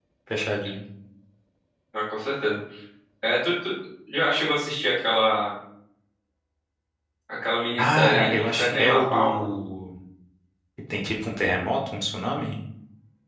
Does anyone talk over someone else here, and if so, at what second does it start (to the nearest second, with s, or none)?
8 s